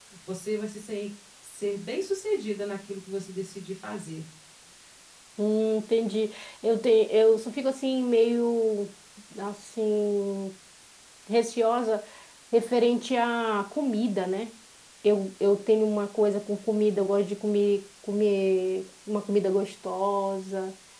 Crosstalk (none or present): none